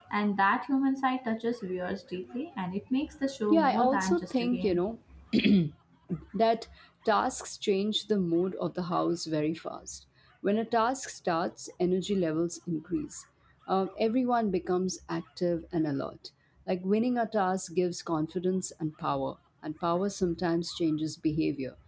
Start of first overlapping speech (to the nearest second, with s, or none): 4 s